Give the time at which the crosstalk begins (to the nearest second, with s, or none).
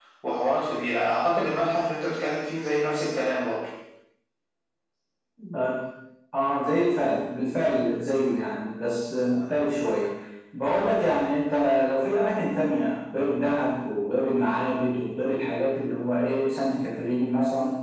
none